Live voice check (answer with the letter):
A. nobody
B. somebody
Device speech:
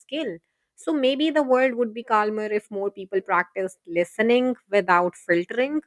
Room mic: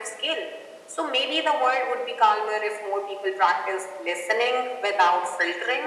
A